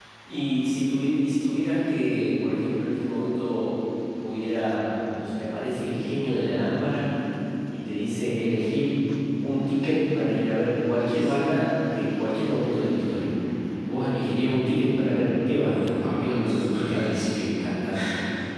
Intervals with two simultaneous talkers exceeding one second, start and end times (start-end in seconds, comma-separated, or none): 15.6-17.4